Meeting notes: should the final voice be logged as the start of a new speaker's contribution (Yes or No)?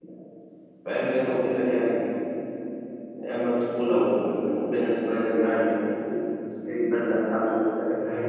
Yes